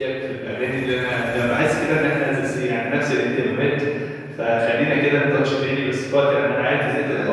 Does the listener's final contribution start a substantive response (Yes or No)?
No